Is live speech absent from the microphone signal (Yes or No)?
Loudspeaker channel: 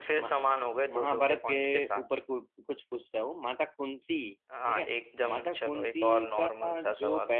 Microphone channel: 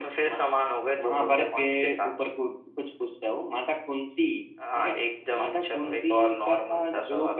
Yes